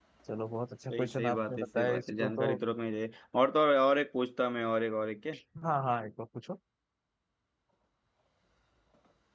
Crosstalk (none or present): present